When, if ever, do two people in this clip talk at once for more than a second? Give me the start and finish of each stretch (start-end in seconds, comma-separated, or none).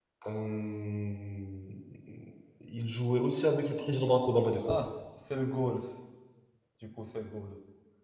none